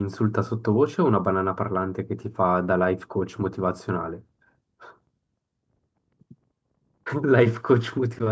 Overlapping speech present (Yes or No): No